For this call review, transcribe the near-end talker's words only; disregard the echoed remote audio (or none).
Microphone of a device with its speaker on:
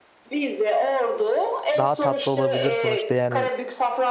daha tatlı olabilir sonuçta. Yani